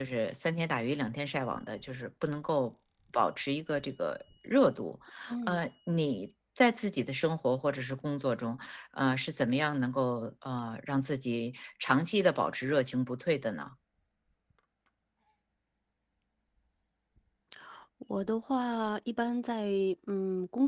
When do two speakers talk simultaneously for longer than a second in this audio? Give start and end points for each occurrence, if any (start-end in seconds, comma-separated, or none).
none